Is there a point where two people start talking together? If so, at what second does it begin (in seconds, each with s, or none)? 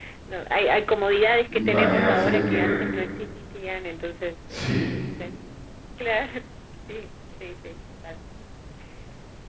1.7 s